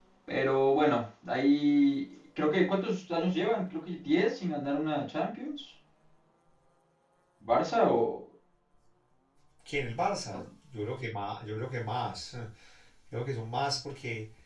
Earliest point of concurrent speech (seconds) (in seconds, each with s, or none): none